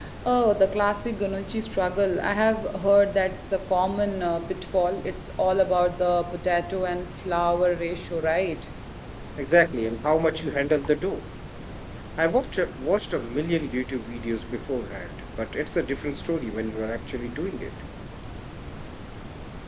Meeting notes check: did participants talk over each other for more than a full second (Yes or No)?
No